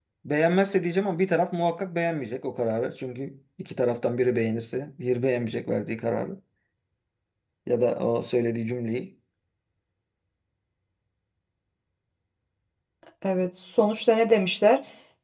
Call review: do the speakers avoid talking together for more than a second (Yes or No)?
Yes